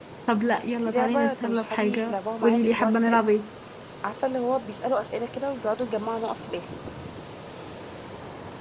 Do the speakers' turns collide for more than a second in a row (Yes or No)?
Yes